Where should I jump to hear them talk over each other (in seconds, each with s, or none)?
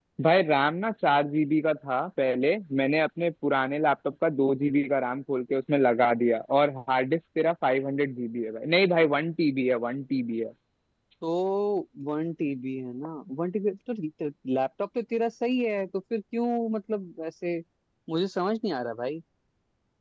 none